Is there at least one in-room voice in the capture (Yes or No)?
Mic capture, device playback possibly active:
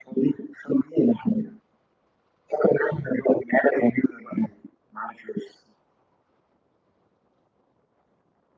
No